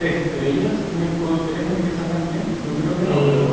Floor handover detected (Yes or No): Yes